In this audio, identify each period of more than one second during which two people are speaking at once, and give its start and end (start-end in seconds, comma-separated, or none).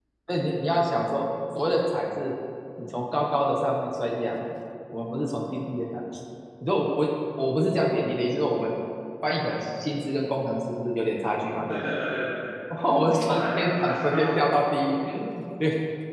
13.1-14.8